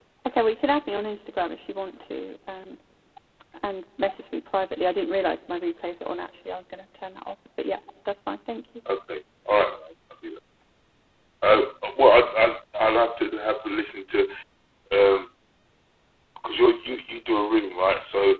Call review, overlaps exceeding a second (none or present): none